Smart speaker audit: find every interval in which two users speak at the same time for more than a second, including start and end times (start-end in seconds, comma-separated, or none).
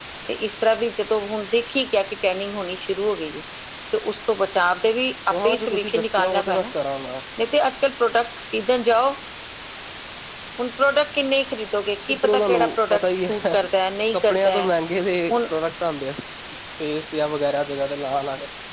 5.4-6.7, 12.1-13.5